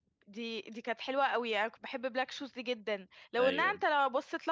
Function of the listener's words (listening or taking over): listening